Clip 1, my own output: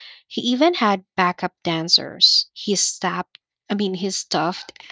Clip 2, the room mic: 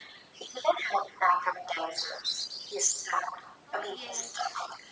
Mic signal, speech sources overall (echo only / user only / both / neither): both